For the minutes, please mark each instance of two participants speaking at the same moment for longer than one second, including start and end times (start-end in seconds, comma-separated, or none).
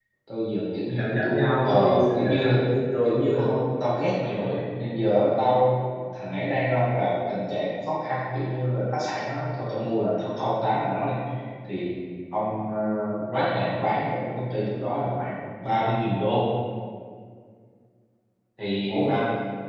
0.9-2.6